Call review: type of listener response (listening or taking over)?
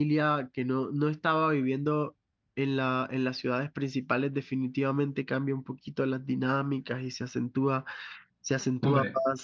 listening